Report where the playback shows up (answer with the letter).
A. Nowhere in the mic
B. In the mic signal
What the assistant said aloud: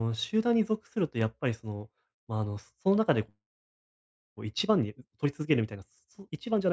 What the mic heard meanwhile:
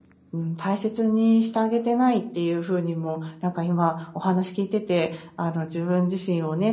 A